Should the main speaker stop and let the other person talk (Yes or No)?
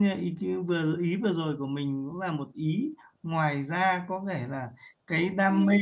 No